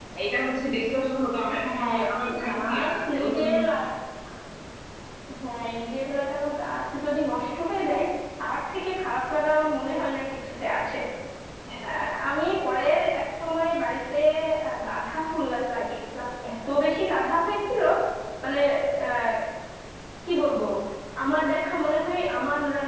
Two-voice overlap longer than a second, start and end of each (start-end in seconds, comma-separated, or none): 1.6-3.6